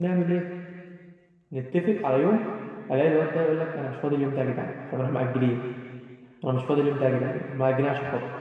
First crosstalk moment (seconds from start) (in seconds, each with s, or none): none